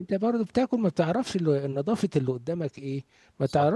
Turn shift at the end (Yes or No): No